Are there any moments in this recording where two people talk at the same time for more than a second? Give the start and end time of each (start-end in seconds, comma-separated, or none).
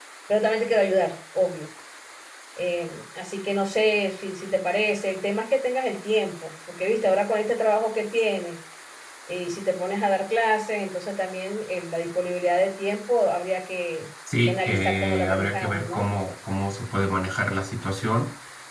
14.4-16.1